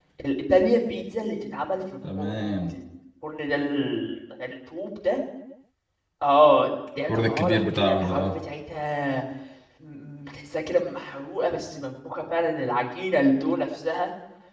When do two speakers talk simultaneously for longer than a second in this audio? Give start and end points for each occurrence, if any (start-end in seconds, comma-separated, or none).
7.1-8.3